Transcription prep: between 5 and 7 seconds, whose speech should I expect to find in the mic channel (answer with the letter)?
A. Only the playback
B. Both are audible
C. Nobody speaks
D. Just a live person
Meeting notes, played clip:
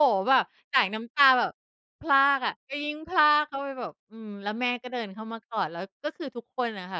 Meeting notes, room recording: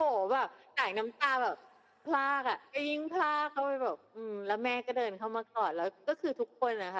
A